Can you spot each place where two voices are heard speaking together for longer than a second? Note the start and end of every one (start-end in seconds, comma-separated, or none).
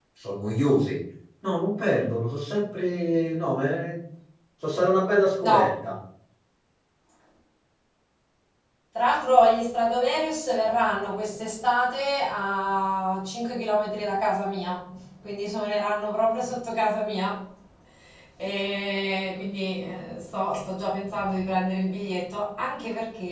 none